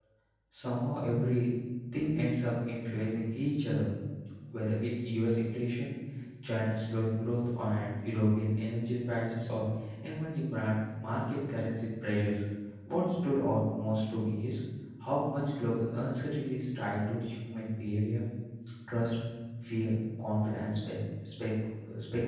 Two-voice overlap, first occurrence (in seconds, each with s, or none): none